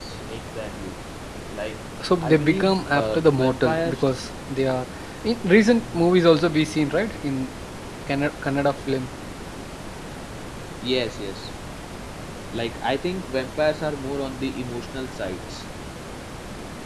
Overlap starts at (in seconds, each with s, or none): 2.2 s